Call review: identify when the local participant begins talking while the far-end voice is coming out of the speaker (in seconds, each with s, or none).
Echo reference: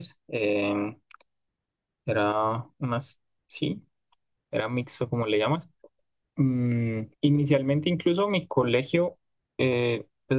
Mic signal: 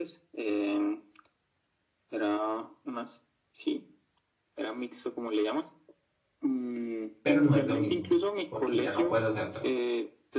7.2 s